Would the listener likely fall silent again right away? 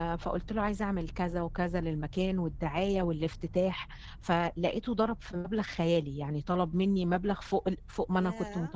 No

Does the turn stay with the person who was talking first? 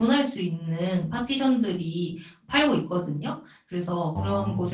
Yes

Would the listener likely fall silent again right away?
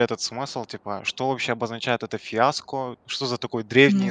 Yes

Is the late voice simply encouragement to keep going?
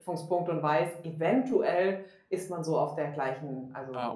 No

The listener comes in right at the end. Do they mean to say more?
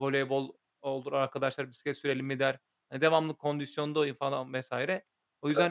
No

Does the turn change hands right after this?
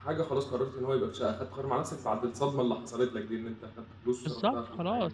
Yes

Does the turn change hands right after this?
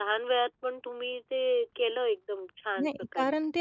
Yes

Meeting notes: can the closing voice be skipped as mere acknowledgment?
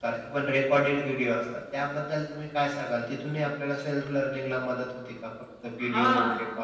No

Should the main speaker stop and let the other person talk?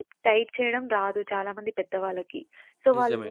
No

